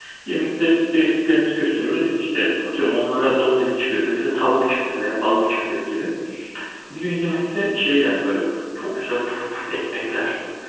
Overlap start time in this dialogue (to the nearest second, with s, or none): none